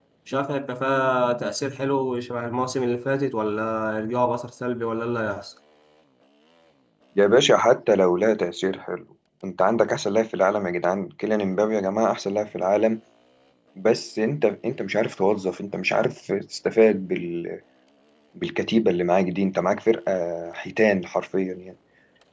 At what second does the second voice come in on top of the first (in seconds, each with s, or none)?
none